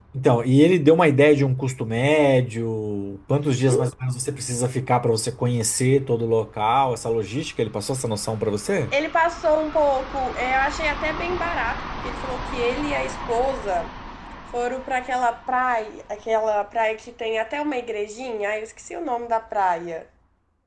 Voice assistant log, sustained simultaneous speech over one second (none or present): none